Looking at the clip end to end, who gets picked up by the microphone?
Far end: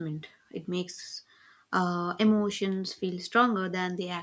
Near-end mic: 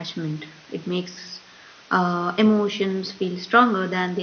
echo only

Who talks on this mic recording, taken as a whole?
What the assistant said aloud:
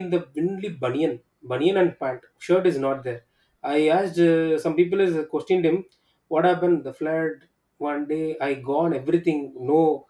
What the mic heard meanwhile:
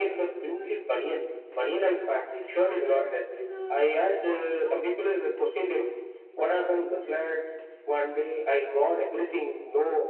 both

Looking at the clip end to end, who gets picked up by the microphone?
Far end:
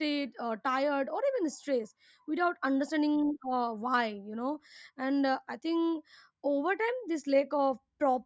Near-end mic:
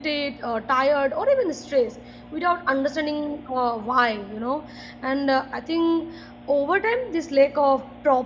echo only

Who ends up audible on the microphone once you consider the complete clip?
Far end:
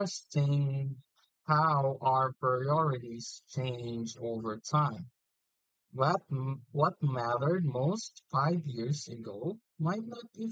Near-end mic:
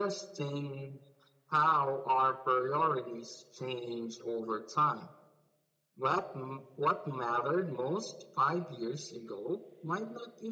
echo only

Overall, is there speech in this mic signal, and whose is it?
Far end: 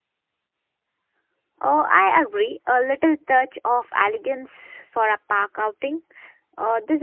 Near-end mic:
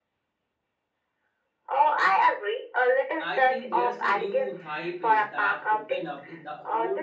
both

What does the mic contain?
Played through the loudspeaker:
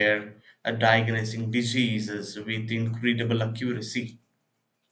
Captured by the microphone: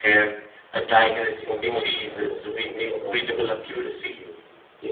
both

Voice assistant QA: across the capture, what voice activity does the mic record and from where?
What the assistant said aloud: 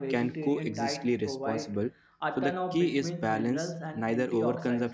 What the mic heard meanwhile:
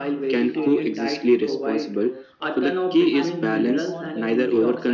both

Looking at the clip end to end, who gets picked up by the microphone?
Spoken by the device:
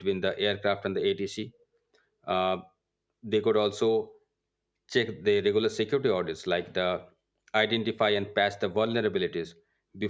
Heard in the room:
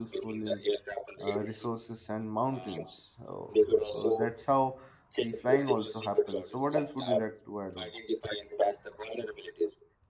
both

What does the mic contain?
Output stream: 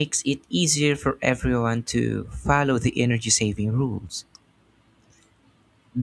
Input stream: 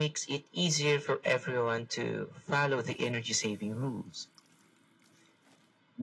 echo only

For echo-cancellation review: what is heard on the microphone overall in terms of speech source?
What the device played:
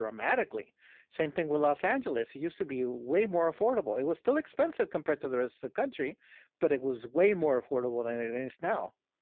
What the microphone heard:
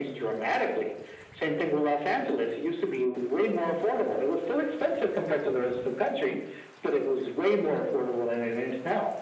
echo only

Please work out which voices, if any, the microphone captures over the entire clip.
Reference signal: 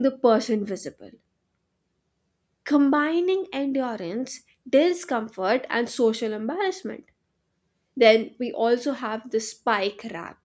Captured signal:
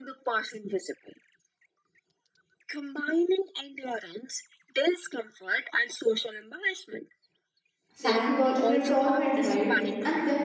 both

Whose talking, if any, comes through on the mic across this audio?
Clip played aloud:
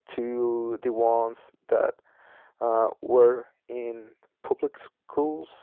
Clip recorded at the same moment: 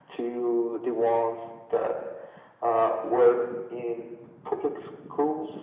echo only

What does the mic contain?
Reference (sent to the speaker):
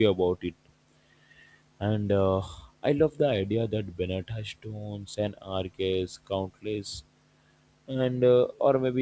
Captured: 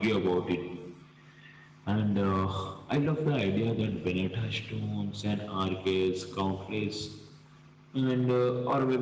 echo only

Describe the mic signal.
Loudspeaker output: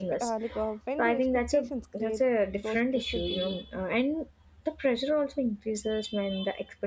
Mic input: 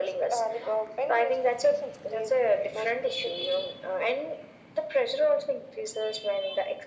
echo only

